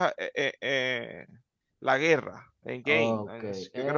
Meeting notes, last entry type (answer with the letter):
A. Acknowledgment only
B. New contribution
B